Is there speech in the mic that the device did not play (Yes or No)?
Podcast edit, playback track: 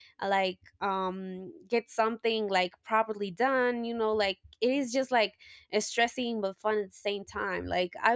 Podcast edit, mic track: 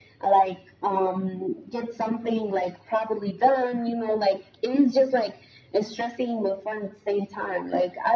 No